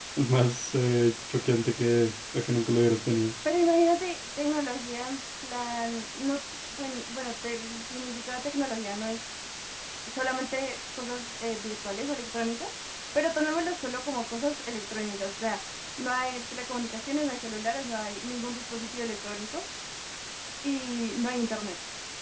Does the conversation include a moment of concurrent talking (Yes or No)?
No